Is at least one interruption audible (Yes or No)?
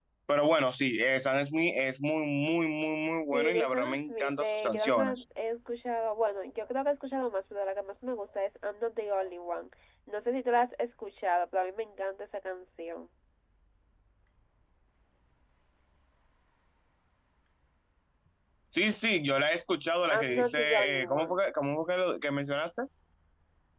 Yes